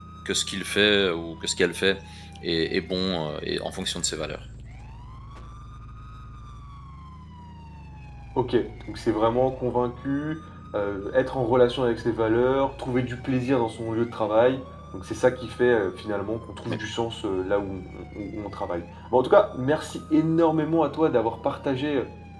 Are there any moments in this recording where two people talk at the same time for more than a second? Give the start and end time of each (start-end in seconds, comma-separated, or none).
none